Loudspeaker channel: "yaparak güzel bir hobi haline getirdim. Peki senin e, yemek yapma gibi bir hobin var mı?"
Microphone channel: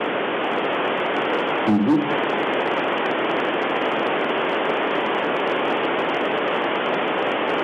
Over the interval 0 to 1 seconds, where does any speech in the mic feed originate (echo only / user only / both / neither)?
neither